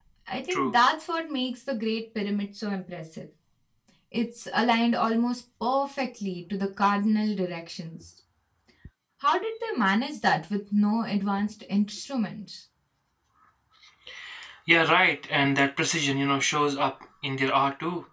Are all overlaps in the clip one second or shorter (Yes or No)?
Yes